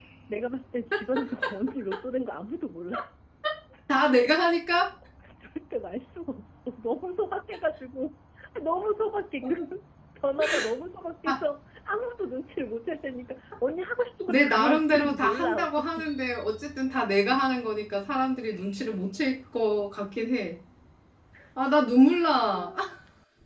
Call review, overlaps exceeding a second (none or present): present